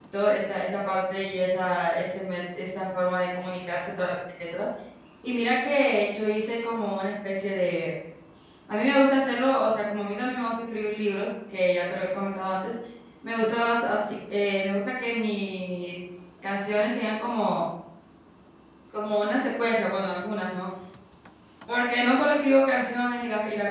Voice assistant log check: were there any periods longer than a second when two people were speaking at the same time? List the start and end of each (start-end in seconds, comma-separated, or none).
none